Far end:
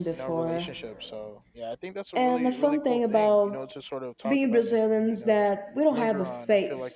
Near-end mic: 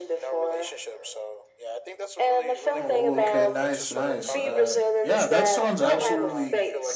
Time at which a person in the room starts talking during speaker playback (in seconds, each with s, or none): 2.7 s